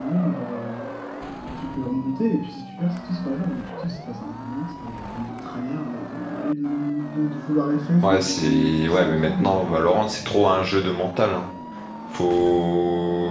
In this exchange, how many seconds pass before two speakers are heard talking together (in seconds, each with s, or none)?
8.0 s